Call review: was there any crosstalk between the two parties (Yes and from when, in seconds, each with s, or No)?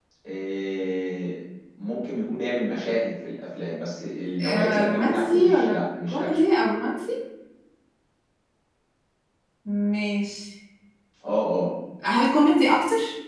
Yes, from 4.4 s